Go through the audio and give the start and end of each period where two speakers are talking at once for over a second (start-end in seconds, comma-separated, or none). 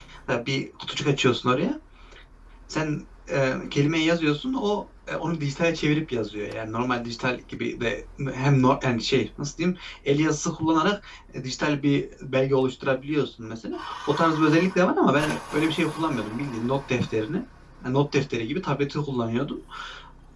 none